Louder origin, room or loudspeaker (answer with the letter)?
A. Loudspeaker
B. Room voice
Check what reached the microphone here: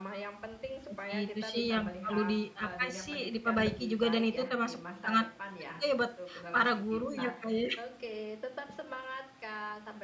B